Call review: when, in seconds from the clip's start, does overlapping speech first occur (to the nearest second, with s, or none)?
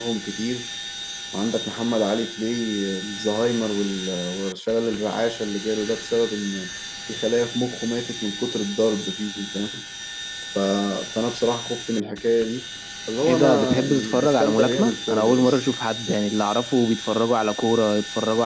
13 s